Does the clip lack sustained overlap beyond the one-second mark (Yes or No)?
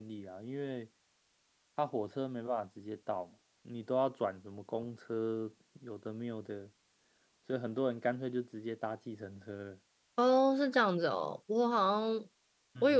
Yes